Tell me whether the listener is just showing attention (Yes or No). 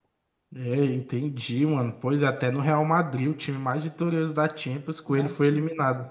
No